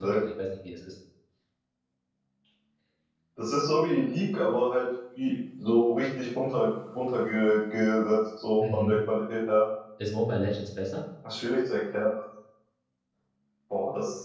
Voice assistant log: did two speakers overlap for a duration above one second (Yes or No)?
No